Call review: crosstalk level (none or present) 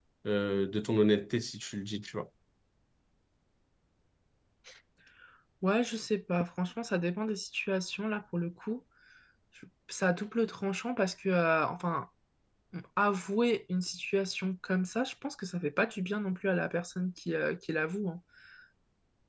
none